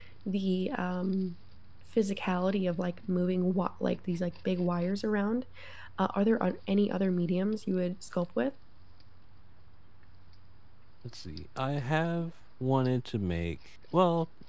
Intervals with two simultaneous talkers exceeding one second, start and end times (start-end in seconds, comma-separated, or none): none